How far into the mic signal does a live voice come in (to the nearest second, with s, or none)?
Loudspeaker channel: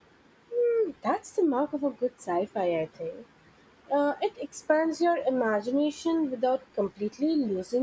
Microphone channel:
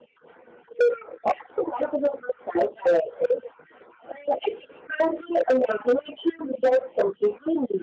none